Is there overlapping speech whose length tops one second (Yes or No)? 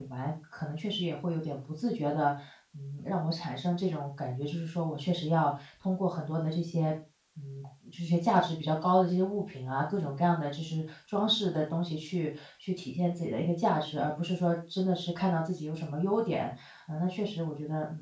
No